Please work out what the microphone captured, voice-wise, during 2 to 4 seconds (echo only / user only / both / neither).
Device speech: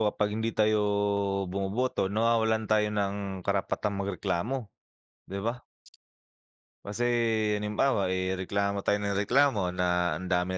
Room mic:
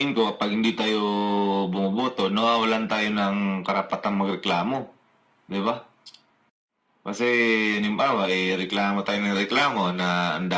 echo only